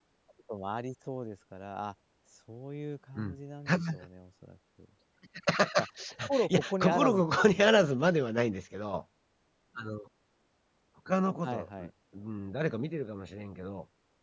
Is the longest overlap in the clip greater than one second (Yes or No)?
Yes